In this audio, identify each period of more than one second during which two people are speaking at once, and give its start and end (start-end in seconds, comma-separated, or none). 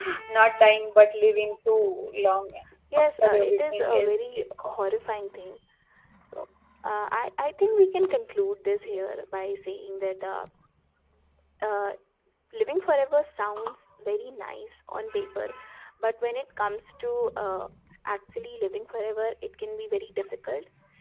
3.0-4.7